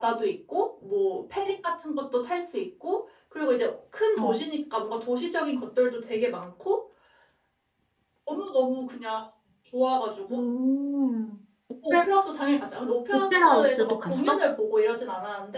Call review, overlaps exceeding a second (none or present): present